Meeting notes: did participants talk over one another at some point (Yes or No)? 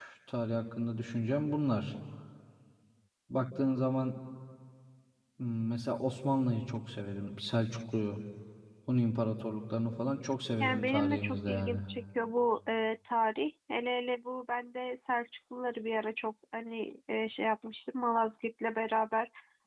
Yes